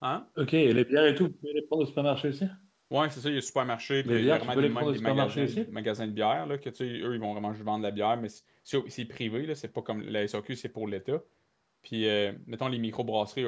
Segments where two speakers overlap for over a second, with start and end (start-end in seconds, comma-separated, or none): 4.0-5.7